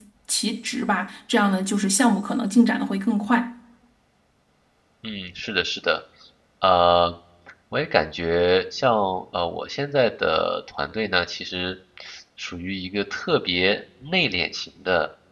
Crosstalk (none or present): none